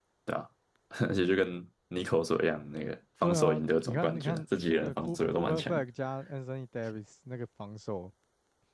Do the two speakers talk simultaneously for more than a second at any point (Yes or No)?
Yes